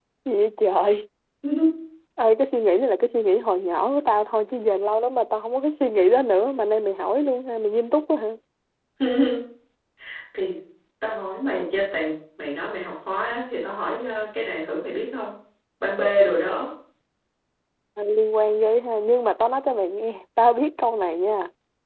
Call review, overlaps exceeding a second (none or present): none